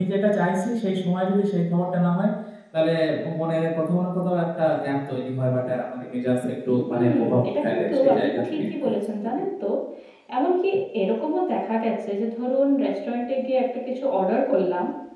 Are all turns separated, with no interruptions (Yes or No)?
No